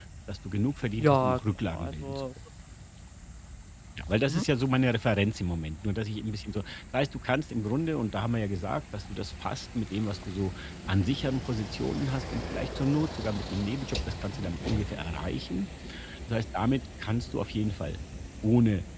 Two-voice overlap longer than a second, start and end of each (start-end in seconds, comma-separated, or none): 1.0-2.3